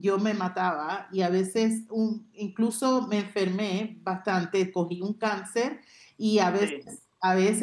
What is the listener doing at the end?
listening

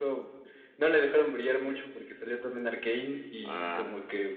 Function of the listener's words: listening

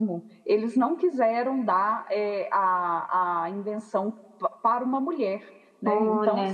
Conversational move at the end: taking over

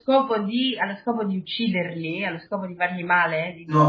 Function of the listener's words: taking over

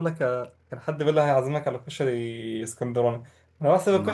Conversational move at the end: listening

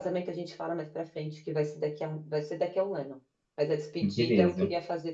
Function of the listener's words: listening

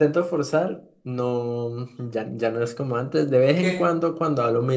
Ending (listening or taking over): listening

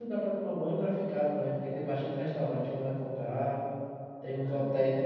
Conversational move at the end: listening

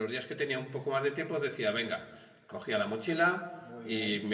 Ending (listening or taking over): listening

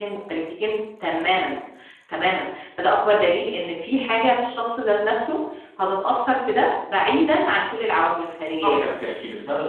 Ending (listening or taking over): taking over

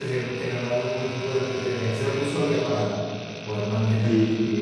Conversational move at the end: taking over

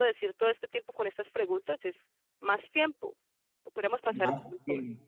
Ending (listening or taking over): taking over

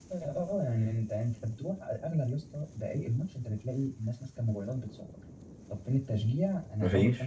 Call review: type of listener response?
listening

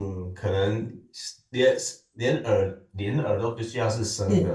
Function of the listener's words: listening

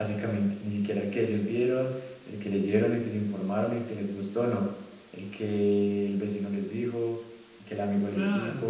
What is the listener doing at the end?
taking over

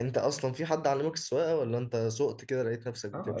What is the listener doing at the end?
taking over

